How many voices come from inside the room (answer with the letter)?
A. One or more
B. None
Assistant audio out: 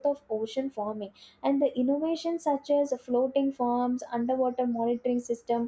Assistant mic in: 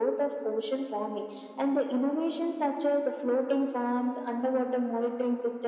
B